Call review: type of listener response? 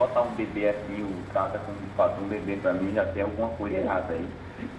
taking over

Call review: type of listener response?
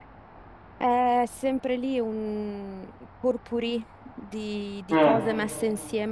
listening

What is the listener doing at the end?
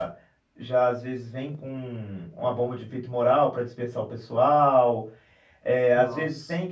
listening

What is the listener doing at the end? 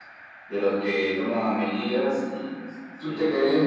listening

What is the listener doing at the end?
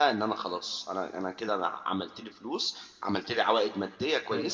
taking over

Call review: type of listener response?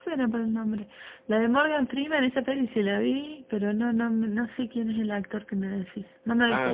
taking over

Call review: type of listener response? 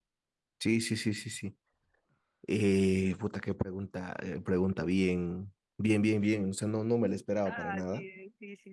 taking over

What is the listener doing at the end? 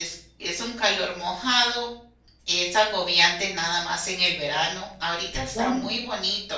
listening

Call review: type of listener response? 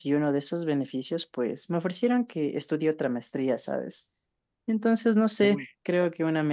listening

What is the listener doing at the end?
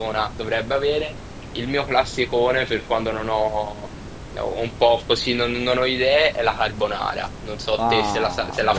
taking over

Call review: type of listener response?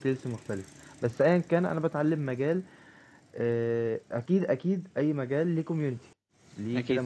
listening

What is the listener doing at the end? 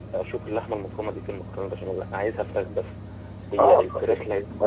taking over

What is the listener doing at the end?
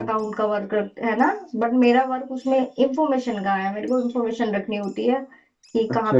taking over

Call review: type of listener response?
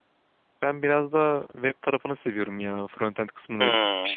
listening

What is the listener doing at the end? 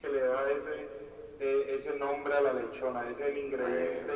listening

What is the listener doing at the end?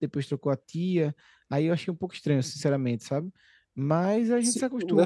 listening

